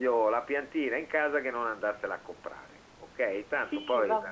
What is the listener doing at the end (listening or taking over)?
taking over